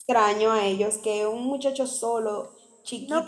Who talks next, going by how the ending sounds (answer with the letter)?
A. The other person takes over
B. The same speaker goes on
A